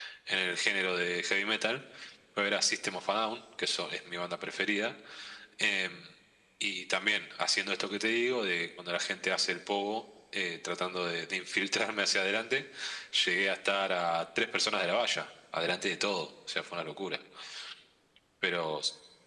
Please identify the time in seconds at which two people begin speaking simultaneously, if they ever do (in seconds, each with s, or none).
none